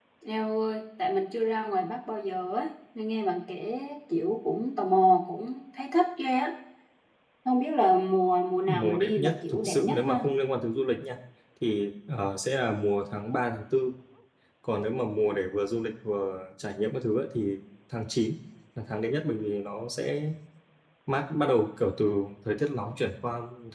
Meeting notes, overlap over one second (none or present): present